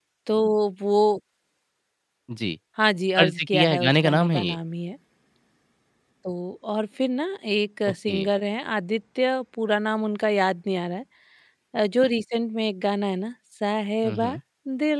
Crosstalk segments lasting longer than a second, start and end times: 3.2-4.6

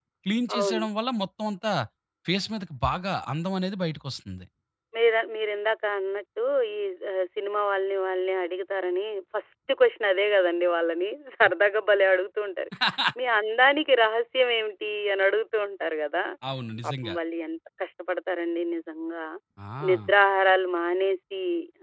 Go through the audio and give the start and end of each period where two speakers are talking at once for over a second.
none

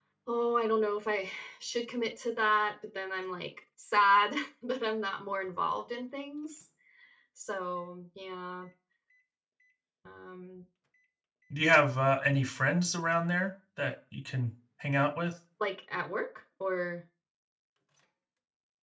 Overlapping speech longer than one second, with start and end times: none

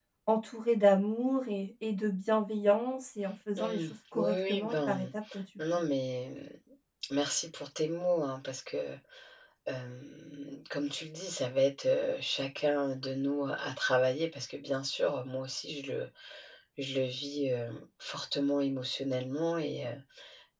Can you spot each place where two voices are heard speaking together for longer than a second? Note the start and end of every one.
3.6-5.0

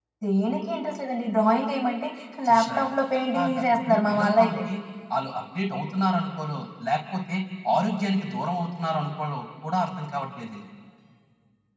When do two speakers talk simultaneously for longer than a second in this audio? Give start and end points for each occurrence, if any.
2.5-4.6

